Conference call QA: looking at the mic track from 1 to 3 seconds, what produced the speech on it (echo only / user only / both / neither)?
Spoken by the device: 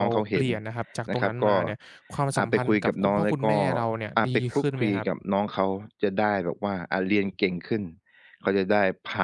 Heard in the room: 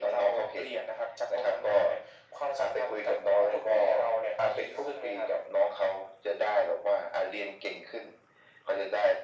echo only